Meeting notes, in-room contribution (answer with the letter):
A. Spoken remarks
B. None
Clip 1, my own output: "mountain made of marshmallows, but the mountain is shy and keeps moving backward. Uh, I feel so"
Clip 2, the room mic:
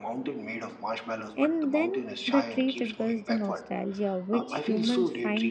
A